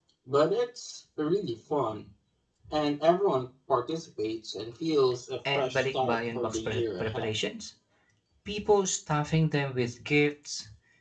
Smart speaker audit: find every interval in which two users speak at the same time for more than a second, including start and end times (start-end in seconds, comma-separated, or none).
5.5-7.3